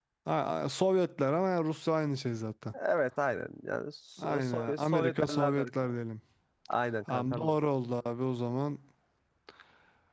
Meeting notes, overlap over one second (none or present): present